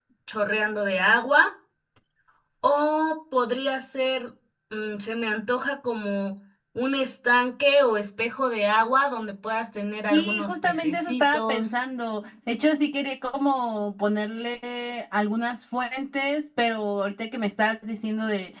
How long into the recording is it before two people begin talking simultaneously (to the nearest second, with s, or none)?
10 s